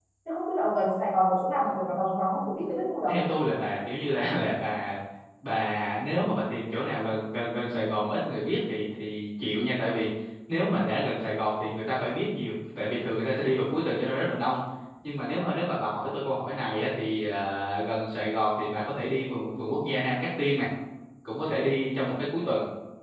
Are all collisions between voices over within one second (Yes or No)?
Yes